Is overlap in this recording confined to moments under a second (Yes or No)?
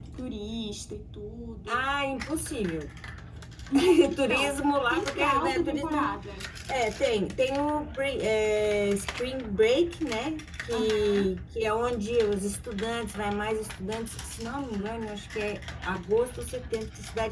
No